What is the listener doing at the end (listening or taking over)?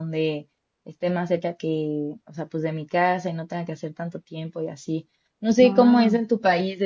listening